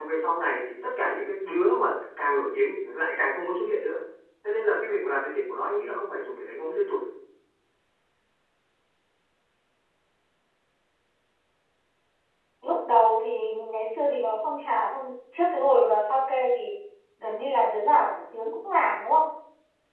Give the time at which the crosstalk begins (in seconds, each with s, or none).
none